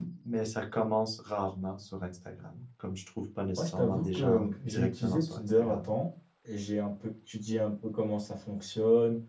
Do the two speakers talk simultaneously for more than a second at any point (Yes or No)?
Yes